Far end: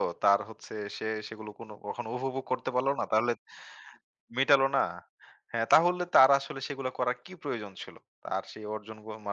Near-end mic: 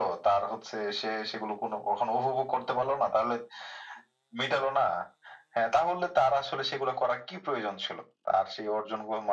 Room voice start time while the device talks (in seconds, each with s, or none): none